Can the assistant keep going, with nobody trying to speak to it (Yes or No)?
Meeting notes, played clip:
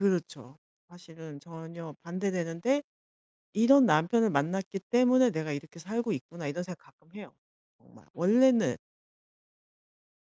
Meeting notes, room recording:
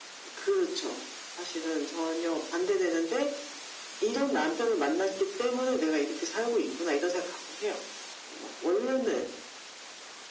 Yes